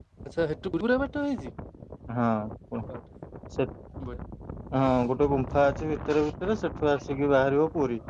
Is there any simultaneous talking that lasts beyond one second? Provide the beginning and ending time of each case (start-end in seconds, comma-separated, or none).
none